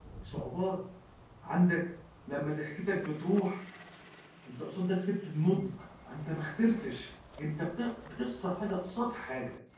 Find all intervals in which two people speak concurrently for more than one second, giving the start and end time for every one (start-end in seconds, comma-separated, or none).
none